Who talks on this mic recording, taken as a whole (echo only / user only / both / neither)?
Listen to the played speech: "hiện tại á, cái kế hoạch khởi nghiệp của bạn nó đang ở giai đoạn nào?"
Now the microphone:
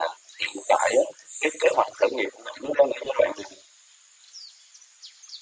echo only